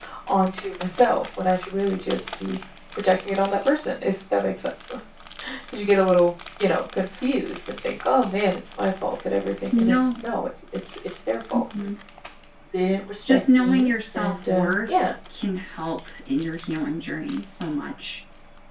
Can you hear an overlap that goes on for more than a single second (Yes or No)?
Yes